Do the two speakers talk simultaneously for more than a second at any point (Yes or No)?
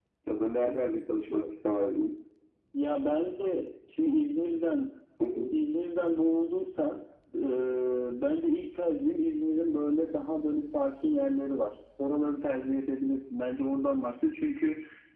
No